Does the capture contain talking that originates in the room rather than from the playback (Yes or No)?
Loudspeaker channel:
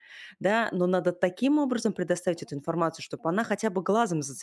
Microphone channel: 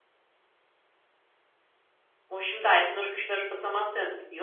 Yes